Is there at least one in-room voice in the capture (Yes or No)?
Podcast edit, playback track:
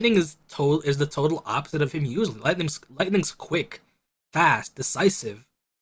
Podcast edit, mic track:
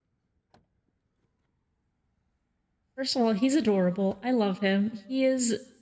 Yes